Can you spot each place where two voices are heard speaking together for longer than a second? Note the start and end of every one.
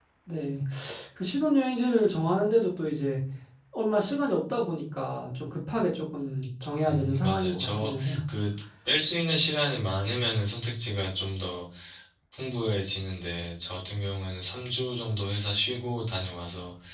6.9-8.2

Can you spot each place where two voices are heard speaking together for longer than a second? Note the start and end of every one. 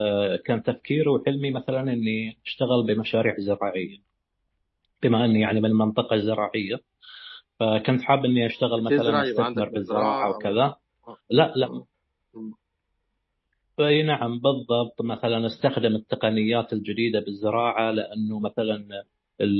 8.9-10.6

